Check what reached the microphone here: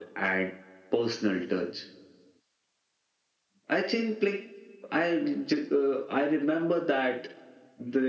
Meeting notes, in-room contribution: none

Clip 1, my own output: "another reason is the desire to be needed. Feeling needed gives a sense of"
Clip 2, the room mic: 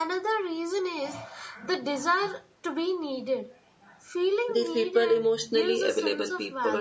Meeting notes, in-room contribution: present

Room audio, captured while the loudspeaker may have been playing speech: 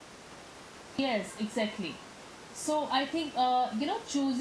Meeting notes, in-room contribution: present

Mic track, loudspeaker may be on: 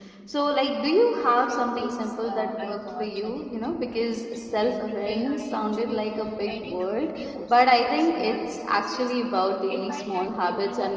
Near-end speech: present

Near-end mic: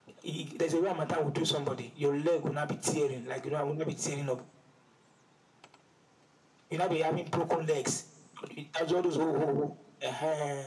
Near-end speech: none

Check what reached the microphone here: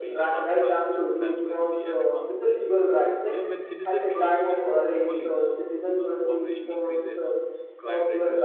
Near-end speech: present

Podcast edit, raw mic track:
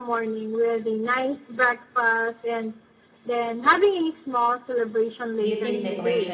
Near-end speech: present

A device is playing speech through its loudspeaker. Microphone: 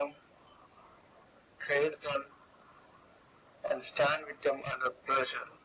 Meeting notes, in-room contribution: none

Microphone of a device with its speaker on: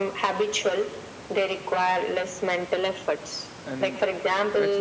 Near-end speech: present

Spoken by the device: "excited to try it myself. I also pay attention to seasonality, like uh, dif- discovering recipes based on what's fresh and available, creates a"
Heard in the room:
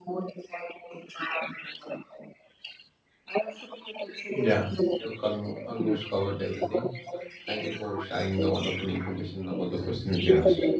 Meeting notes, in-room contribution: present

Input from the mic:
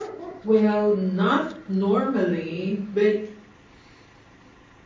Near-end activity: present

